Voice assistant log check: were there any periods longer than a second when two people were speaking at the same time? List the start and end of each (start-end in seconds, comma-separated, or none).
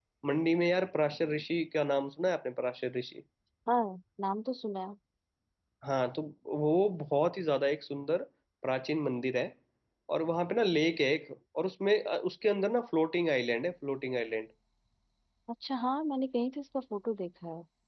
none